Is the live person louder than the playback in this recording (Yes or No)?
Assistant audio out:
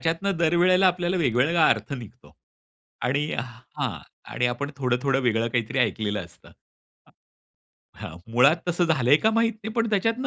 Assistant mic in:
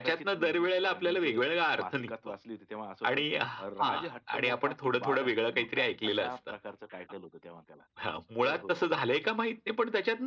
No